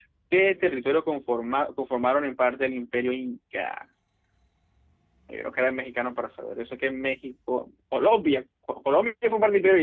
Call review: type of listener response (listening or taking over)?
taking over